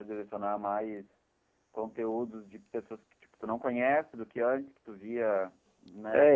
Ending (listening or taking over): taking over